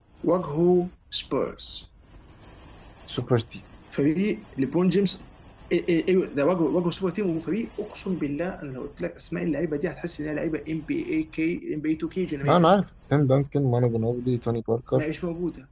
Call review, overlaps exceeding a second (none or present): none